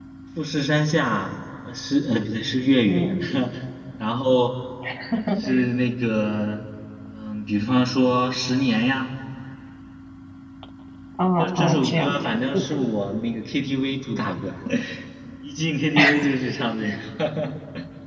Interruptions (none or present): present